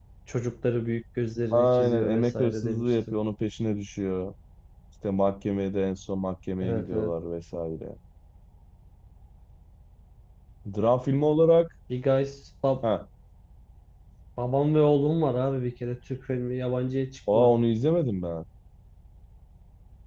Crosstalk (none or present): present